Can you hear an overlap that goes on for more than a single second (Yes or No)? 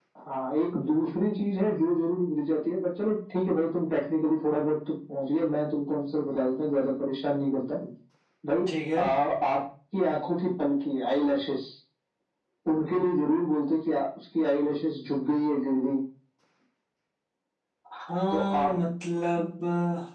No